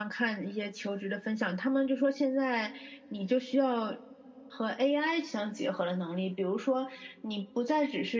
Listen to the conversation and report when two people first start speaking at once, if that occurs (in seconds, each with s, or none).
none